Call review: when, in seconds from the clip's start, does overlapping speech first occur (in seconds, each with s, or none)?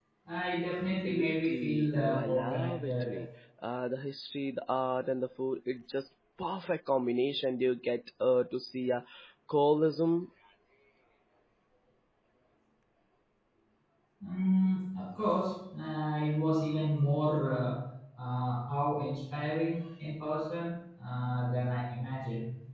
1.1 s